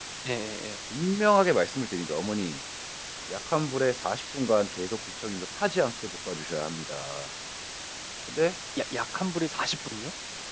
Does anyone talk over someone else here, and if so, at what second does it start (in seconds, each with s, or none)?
none